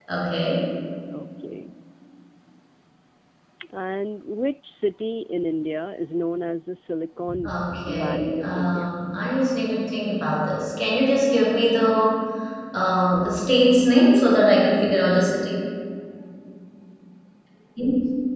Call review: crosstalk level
present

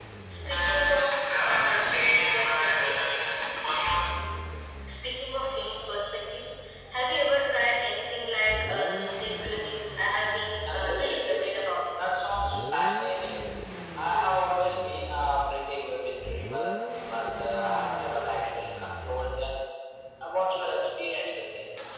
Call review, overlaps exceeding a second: present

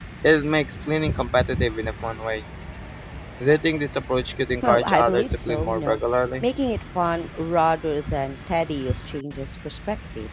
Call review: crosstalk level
present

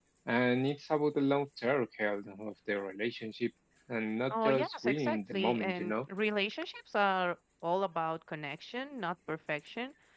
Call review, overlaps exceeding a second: present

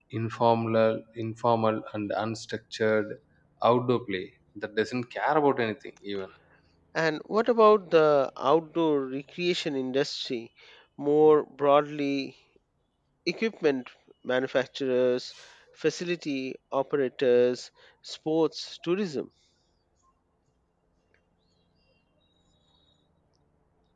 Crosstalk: none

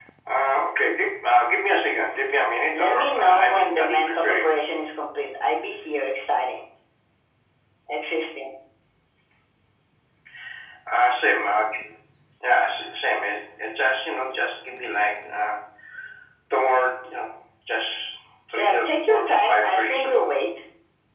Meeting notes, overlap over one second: present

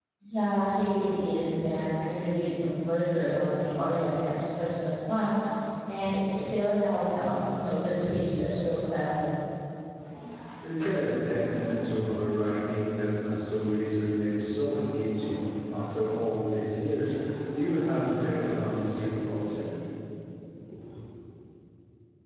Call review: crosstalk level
none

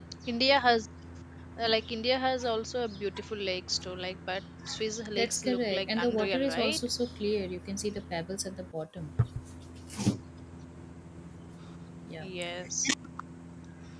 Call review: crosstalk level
present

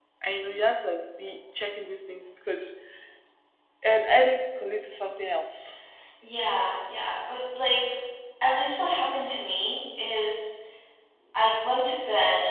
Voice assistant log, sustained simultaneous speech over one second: none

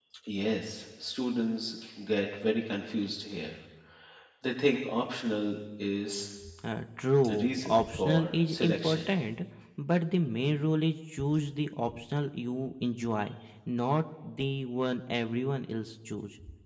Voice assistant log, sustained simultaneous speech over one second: present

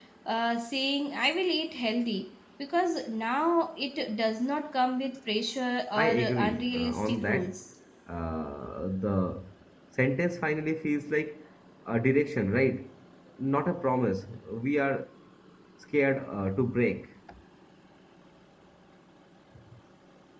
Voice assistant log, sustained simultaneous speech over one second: present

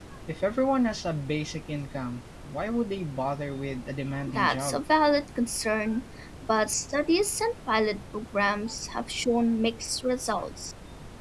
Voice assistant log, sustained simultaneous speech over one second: none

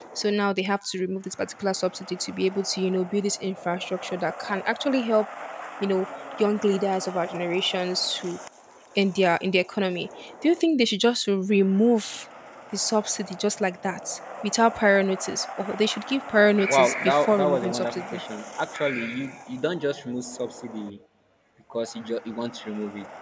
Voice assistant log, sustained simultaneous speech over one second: present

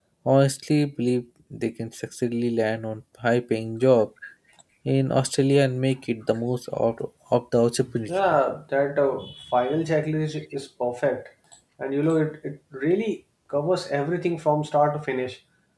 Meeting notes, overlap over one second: none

